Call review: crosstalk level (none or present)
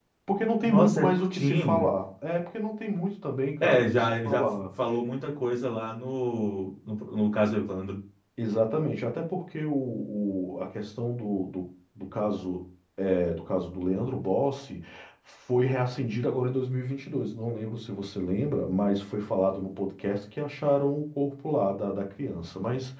present